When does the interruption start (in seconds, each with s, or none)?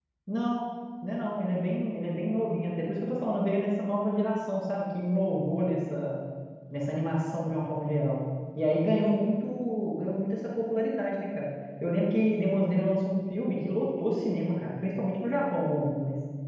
none